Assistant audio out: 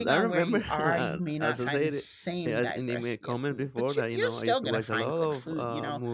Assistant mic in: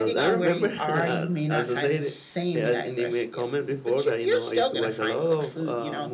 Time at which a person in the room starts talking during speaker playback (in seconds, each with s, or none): none